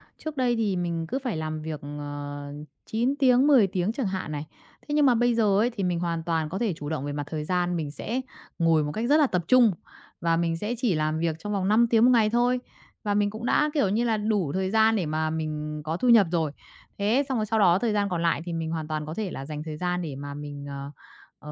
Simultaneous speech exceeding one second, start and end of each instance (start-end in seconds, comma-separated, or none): none